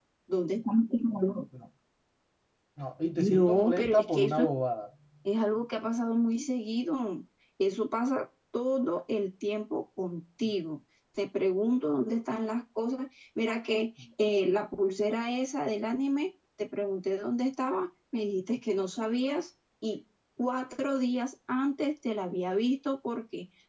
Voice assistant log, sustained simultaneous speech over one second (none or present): present